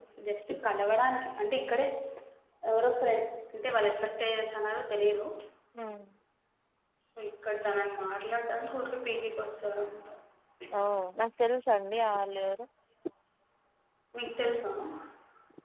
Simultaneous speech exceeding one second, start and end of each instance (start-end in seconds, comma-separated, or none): none